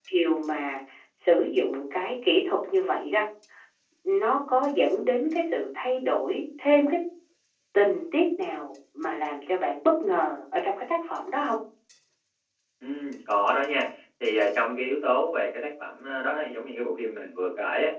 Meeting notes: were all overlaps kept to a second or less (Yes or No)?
Yes